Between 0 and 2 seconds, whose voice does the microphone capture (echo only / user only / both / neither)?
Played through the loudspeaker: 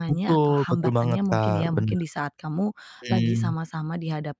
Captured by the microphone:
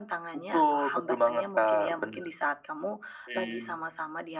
echo only